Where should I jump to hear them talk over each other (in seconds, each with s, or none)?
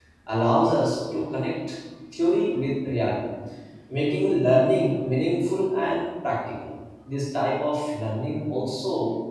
none